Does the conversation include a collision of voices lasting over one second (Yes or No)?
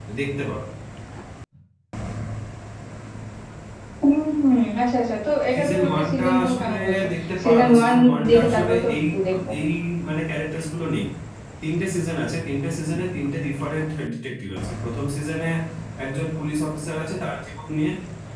Yes